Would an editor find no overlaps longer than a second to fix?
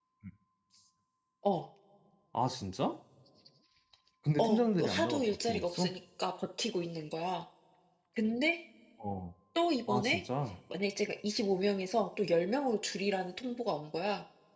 No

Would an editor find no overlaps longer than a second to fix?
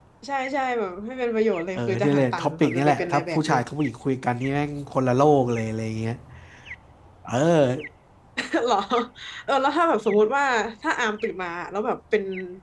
No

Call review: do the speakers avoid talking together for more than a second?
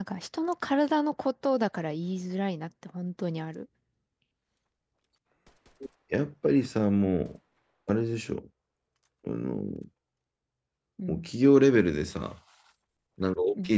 Yes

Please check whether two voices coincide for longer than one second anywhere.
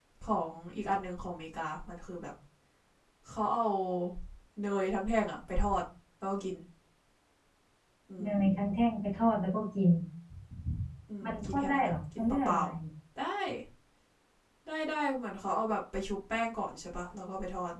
Yes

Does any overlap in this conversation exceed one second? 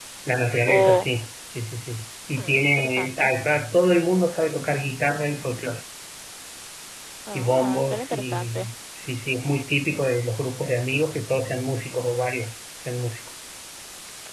Yes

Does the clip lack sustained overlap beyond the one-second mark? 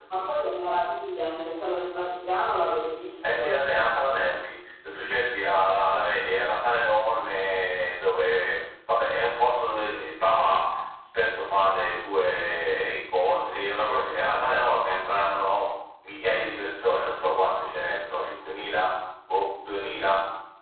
Yes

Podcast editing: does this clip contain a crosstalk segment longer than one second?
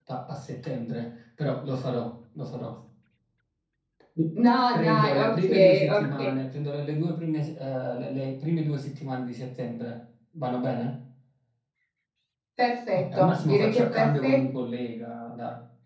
Yes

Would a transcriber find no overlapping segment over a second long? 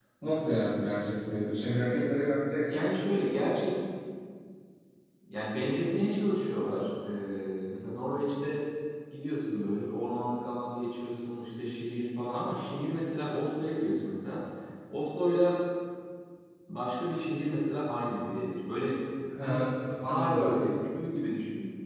Yes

